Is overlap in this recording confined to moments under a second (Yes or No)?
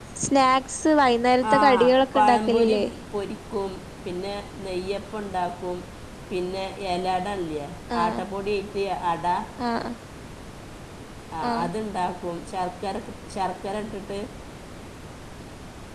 No